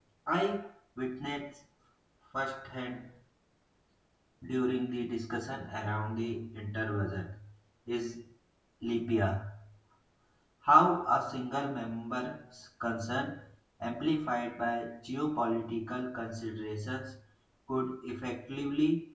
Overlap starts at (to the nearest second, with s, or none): none